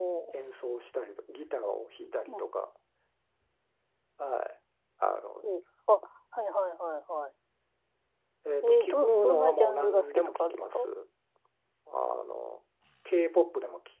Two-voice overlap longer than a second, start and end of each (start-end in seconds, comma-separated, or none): 8.6-10.9